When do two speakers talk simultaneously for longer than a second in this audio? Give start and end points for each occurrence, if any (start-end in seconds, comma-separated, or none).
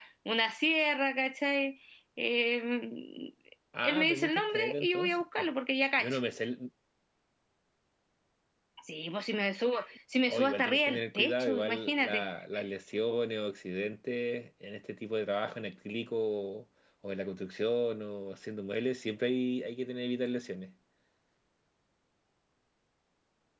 3.8-5.5, 10.2-12.2